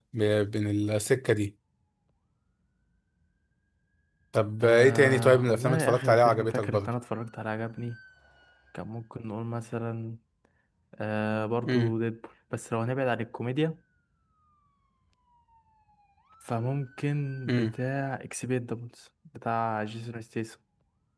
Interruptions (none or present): present